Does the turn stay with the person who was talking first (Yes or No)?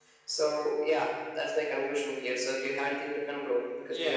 No